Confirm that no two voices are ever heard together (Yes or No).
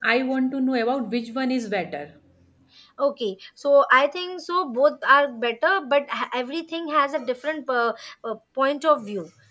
Yes